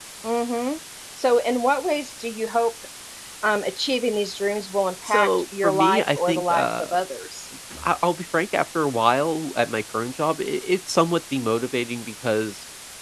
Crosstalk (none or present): present